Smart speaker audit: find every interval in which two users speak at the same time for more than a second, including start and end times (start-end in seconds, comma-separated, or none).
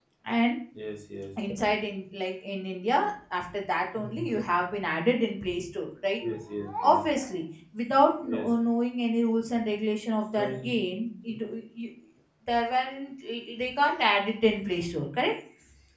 none